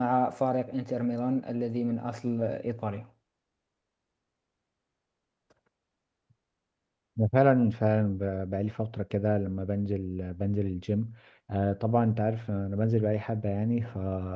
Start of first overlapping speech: none

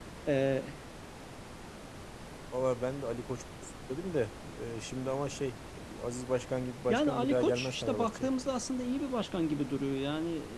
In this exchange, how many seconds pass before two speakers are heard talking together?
6.9 s

